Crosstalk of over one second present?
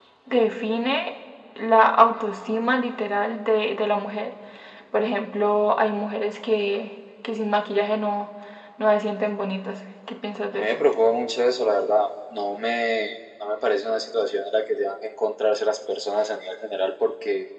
No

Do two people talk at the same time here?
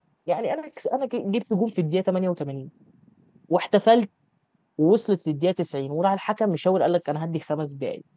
No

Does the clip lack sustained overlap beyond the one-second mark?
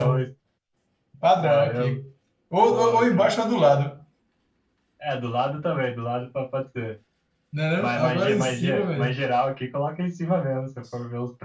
No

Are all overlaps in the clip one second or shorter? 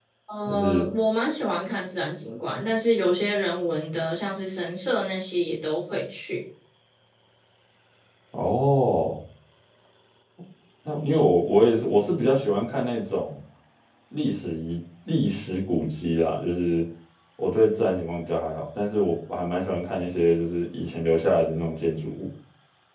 Yes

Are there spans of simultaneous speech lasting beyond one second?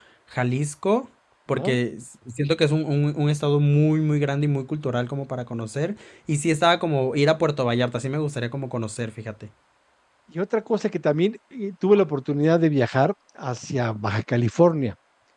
No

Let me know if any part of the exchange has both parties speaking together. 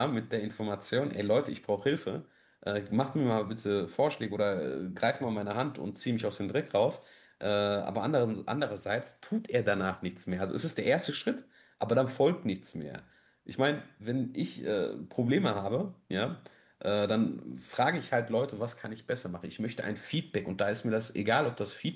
No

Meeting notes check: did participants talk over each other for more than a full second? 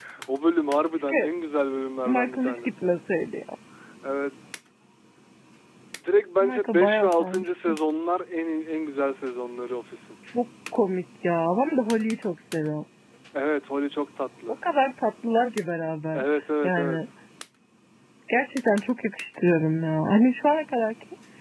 Yes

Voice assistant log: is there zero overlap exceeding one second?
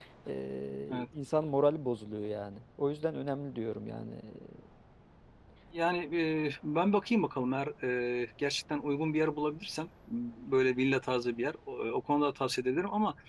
Yes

